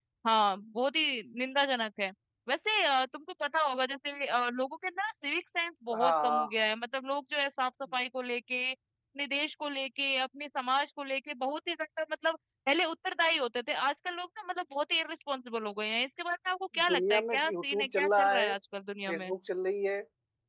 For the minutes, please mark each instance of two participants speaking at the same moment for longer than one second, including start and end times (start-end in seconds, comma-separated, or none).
16.9-18.5